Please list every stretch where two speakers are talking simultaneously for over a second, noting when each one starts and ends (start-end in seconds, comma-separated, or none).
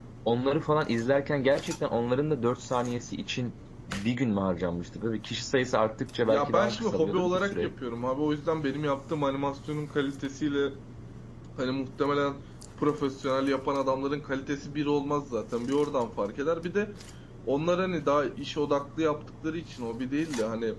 6.2-7.7